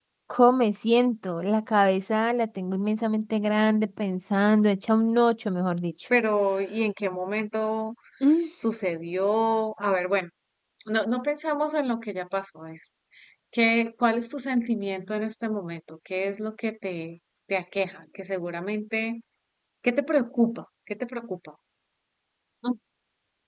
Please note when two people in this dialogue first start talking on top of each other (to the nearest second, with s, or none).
none